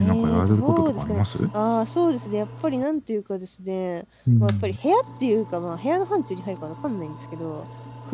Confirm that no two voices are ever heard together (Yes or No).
No